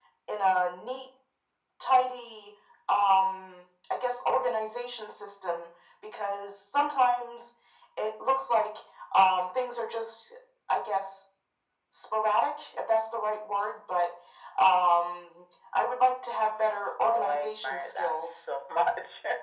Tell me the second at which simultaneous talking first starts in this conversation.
17.0 s

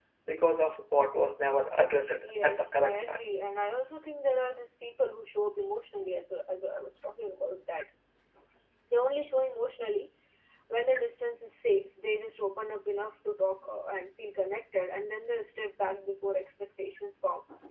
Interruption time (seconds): 2.1 s

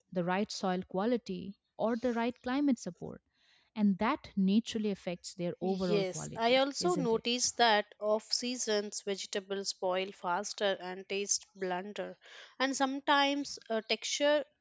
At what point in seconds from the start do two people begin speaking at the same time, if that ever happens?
5.6 s

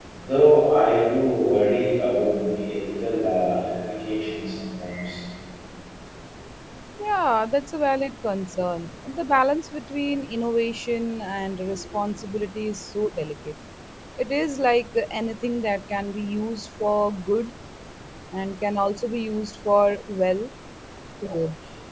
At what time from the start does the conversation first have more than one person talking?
none

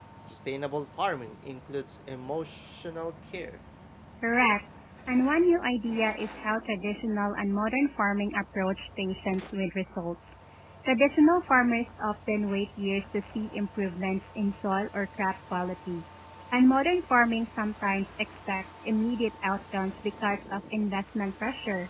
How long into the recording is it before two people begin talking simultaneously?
none

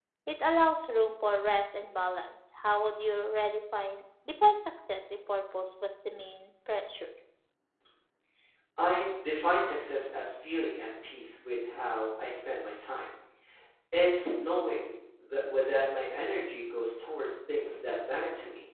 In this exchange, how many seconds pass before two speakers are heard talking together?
none

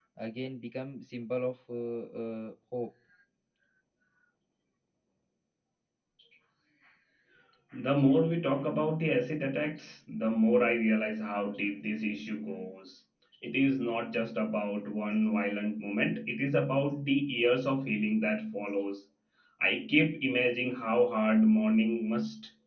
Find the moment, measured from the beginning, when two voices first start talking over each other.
none

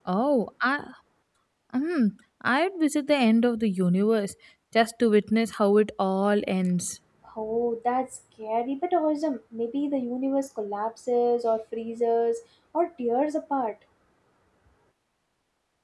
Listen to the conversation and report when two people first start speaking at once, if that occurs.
none

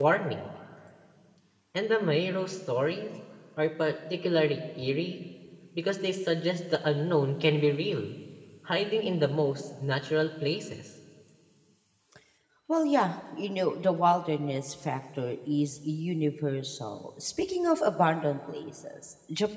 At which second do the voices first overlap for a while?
none

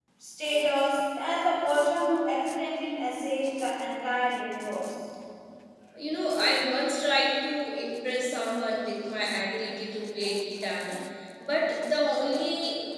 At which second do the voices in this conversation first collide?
none

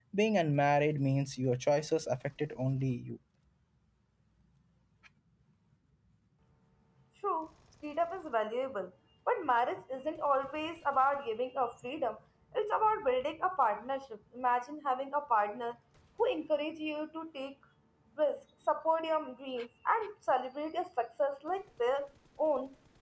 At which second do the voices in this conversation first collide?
none

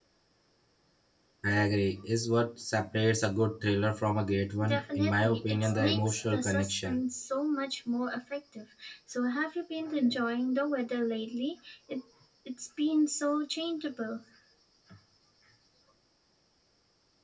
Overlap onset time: 4.6 s

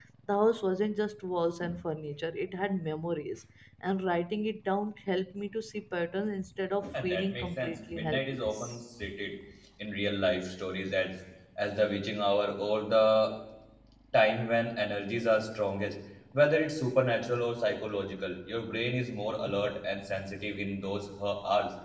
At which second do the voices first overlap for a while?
6.9 s

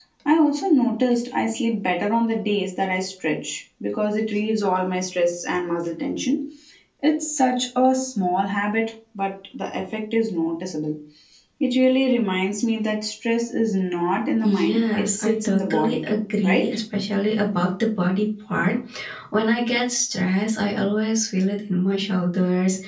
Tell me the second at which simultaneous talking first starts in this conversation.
14.4 s

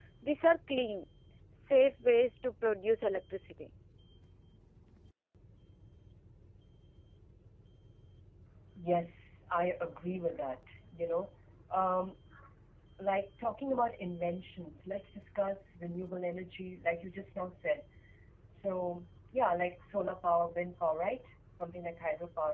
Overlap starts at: none

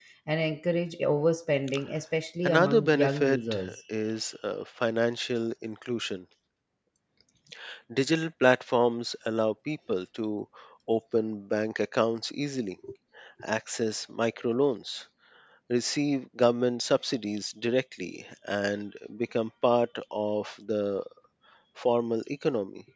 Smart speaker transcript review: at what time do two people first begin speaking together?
2.4 s

